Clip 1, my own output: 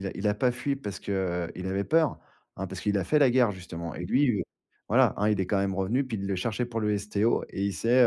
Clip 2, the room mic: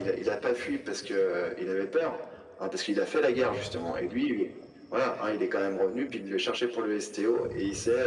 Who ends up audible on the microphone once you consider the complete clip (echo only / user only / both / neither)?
echo only